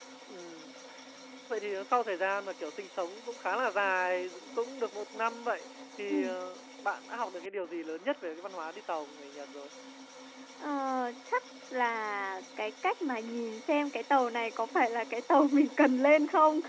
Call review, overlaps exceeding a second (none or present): none